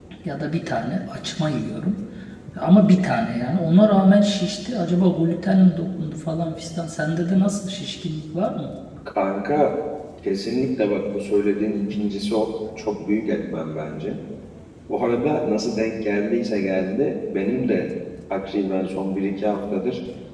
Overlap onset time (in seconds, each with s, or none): none